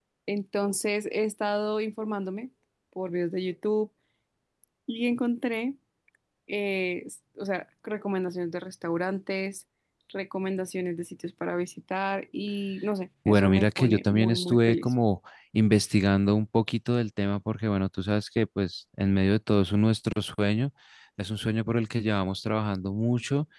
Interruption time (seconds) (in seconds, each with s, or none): 13.2 s